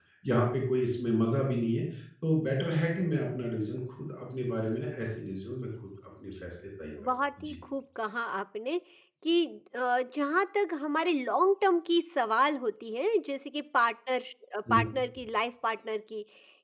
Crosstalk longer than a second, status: none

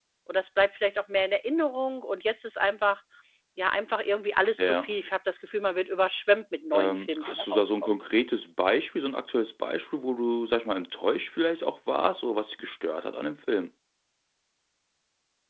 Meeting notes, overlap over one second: present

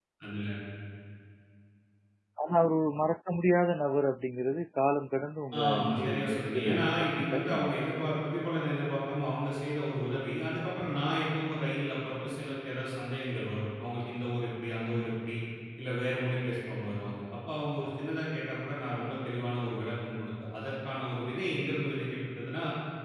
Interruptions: present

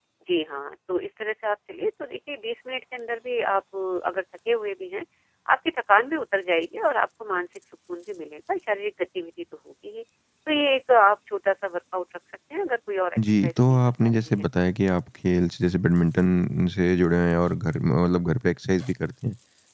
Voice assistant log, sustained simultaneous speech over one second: present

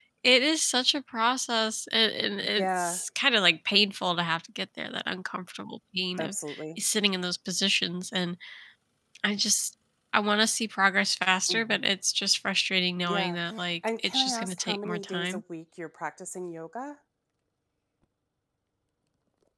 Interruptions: present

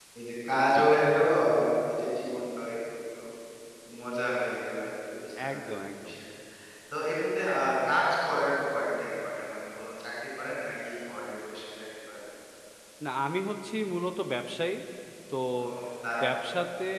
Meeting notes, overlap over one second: none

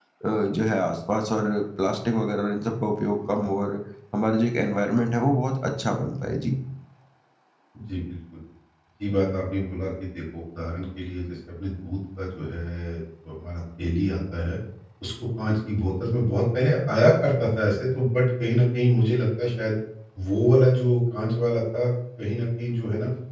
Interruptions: none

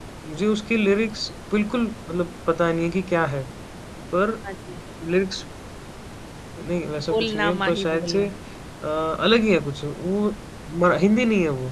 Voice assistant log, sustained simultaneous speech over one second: present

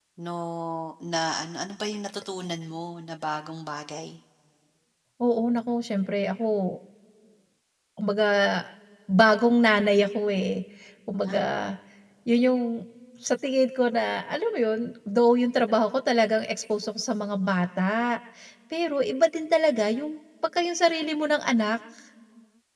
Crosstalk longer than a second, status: none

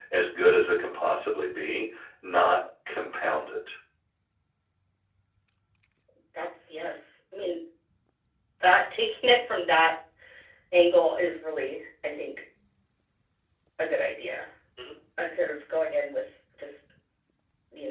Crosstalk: none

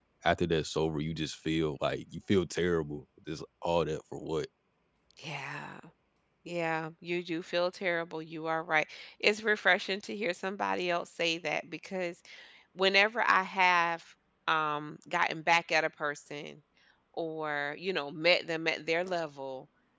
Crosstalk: none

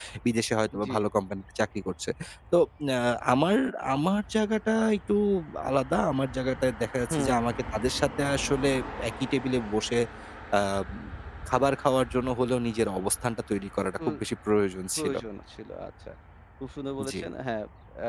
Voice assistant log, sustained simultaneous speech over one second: none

